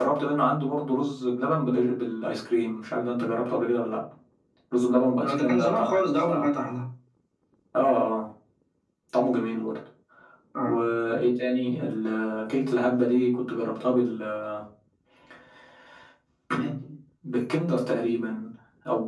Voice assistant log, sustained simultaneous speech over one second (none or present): present